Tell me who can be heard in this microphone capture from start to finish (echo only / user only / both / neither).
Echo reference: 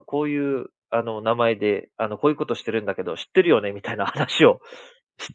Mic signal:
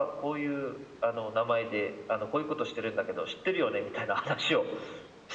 echo only